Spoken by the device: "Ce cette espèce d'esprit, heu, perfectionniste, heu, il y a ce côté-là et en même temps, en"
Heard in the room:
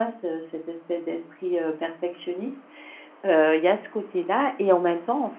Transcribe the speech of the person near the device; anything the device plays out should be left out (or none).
none